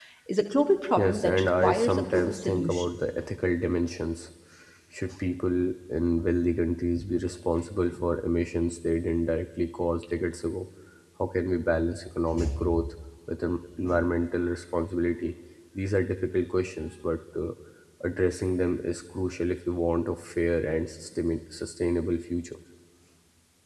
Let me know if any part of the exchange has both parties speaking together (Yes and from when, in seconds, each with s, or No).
Yes, from 1.0 s